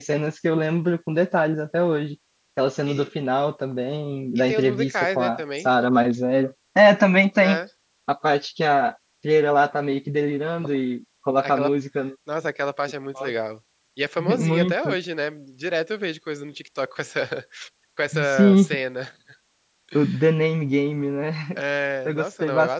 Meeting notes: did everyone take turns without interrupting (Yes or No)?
No